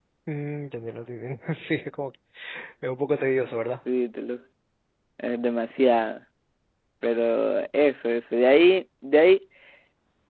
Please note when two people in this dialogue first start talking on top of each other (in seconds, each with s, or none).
none